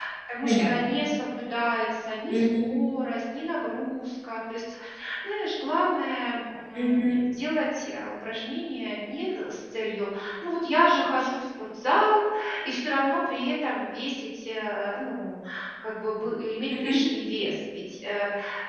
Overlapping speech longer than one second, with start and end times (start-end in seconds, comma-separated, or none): none